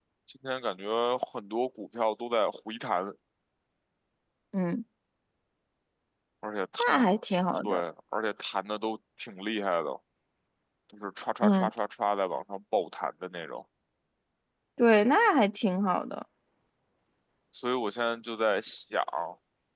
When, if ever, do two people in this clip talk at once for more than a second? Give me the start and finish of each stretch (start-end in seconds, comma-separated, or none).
none